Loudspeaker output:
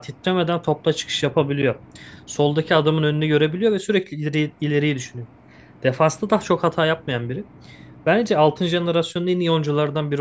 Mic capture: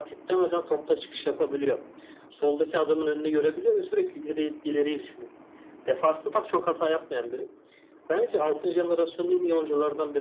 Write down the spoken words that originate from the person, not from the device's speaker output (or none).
none